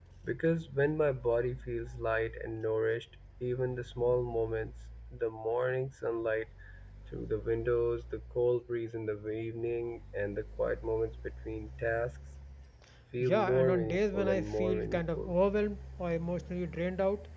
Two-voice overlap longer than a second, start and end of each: 13.2-15.3

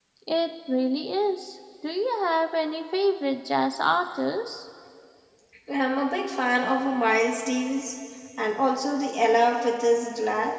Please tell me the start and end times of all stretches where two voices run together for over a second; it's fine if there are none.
none

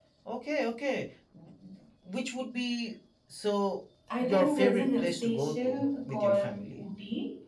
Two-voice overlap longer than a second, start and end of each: 4.2-6.8

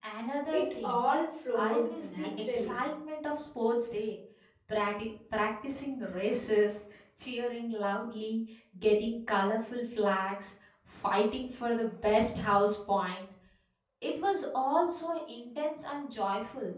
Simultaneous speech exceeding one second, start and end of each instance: 1.5-2.8

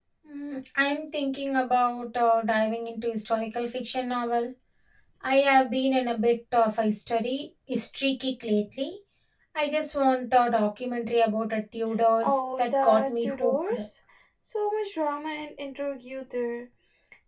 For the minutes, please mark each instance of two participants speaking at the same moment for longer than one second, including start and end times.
12.2-13.8

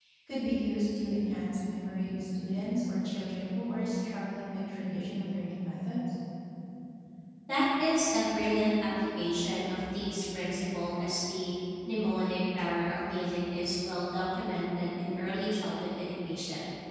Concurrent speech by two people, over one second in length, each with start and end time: none

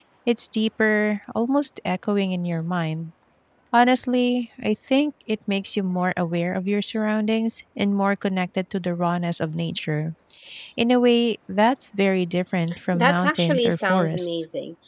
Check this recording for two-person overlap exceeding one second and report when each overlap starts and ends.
12.9-14.3

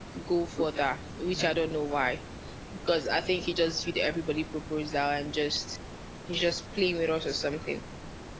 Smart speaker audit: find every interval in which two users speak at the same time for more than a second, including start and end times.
none

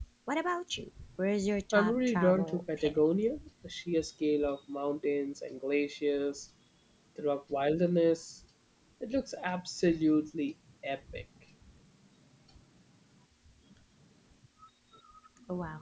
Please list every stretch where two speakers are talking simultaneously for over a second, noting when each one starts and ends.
1.7-3.0

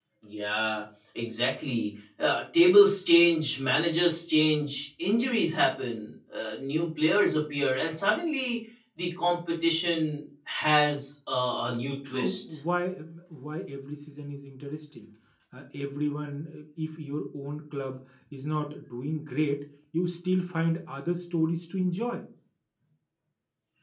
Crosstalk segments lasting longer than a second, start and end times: none

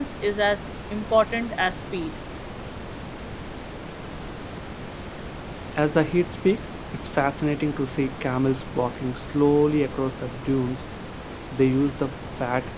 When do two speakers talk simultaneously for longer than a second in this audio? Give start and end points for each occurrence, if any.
none

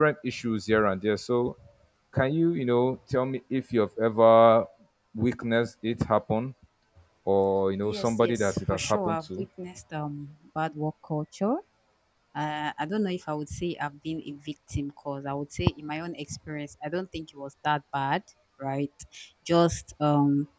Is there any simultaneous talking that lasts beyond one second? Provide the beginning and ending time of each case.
7.8-9.4

